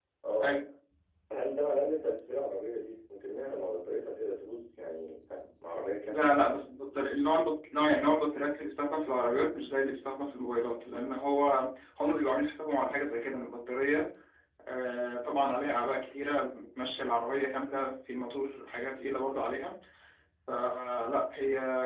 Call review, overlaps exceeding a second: none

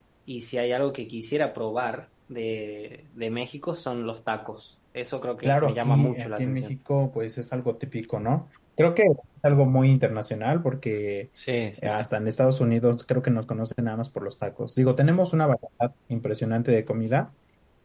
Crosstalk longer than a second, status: present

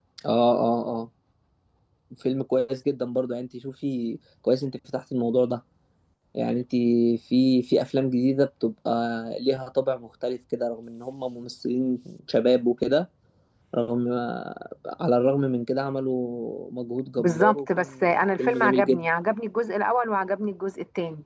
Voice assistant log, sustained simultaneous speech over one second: present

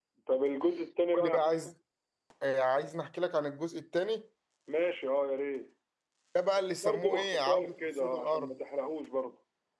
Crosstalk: present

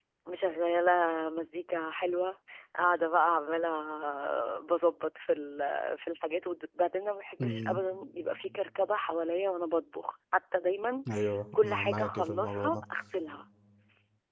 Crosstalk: present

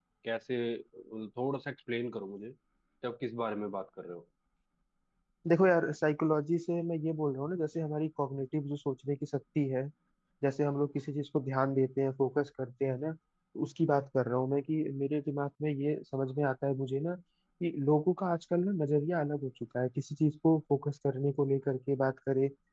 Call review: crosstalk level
none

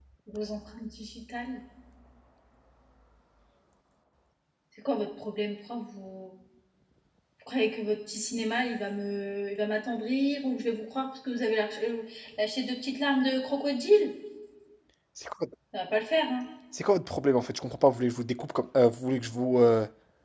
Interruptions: none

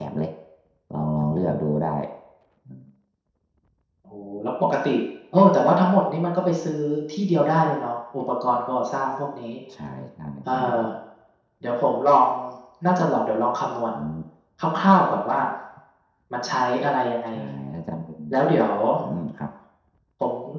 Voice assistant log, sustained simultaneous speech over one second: none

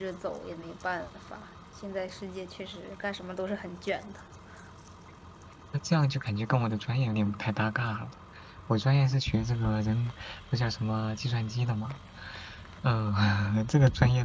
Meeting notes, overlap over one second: none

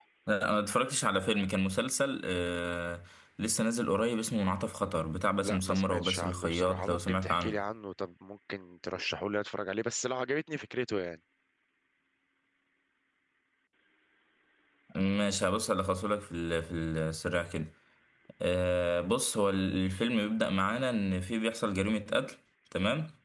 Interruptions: present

